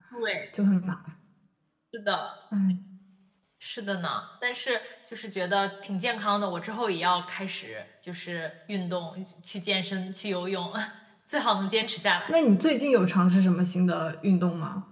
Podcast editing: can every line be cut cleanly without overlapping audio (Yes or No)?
Yes